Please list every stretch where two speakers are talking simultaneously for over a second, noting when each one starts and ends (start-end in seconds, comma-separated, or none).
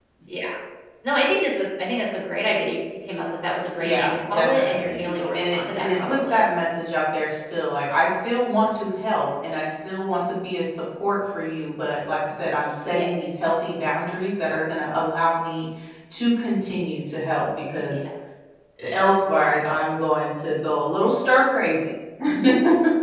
3.8-6.4